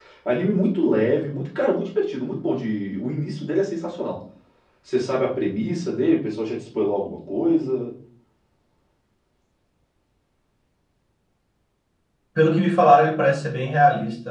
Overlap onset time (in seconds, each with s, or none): none